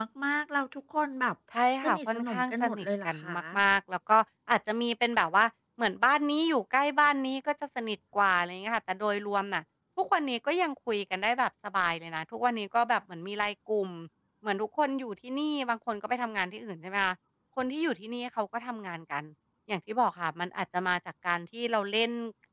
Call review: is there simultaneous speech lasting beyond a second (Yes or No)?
Yes